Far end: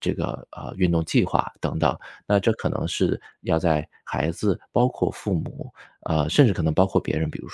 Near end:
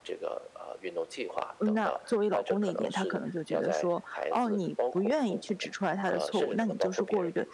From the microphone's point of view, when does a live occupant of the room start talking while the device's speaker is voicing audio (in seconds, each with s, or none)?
1.6 s